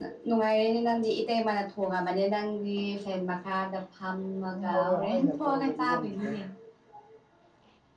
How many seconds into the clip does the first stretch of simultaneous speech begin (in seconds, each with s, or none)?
4.5 s